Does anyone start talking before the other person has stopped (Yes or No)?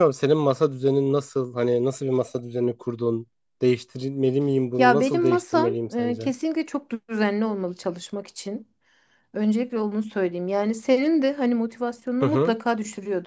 Yes